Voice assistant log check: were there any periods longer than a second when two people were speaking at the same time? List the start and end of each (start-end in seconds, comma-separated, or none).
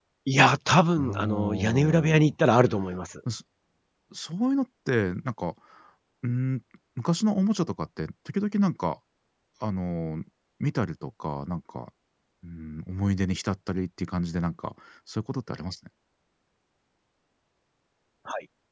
1.0-2.3